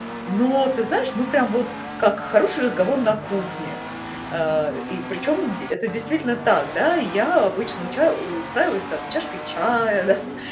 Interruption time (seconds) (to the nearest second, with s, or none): none